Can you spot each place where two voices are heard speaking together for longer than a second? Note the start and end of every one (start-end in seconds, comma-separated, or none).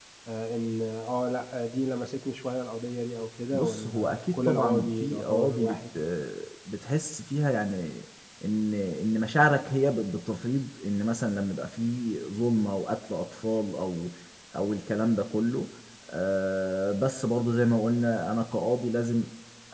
3.5-5.8